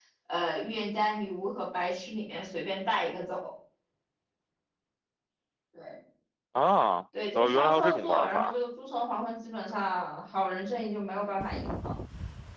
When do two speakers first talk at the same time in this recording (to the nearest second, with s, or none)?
7 s